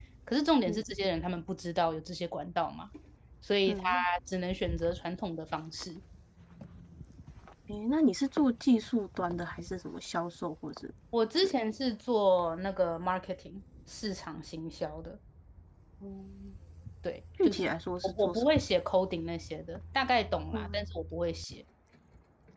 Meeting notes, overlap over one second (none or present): none